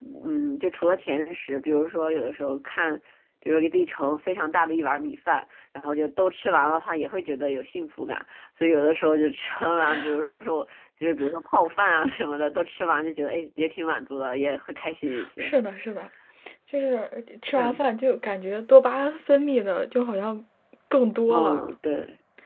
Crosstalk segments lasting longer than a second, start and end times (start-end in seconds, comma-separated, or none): none